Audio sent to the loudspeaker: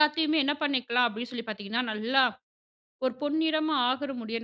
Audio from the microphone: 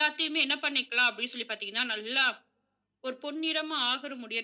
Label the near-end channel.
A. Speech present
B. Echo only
B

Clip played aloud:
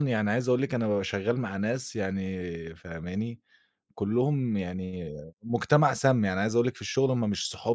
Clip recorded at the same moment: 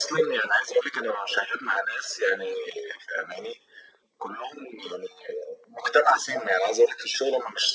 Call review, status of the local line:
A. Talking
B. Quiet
B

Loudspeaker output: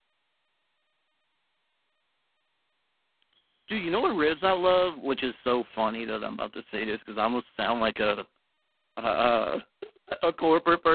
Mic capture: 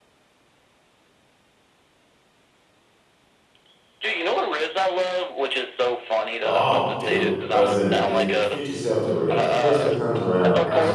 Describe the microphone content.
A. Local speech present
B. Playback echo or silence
A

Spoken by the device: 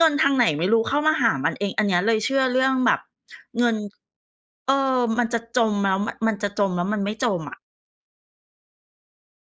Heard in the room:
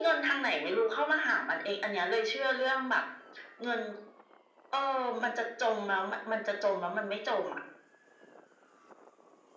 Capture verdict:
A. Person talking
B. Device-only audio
B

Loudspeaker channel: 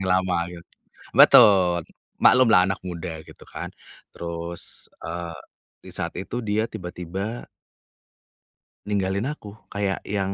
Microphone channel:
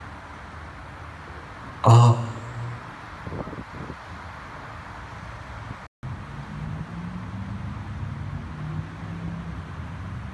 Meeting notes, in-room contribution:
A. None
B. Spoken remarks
B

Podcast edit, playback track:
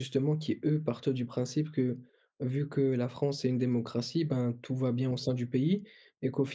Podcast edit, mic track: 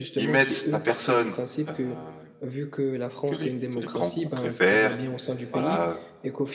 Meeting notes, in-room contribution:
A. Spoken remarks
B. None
A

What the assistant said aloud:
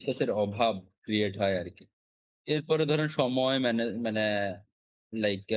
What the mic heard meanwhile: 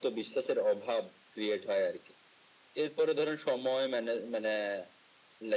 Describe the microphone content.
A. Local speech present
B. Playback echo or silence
B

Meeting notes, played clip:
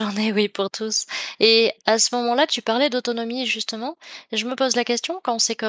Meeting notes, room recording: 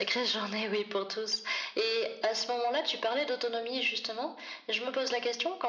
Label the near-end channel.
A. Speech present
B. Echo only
B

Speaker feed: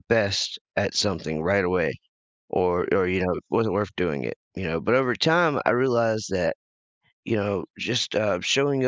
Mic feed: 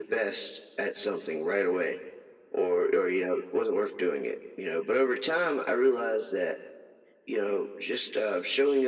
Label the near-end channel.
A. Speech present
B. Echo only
B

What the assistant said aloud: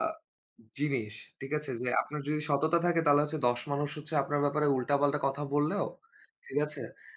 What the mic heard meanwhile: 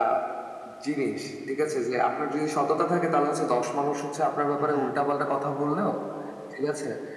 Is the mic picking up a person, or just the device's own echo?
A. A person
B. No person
A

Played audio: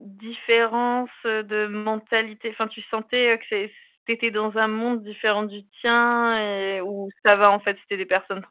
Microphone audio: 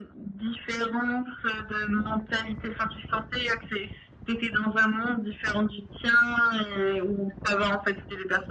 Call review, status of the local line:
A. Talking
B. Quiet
B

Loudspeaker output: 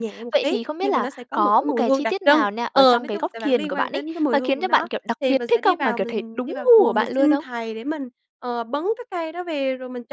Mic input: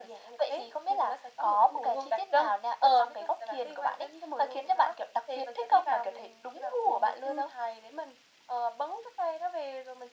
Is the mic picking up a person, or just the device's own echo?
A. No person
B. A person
A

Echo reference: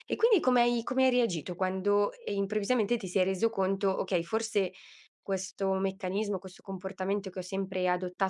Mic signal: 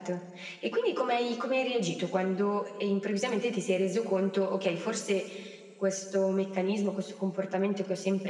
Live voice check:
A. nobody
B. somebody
A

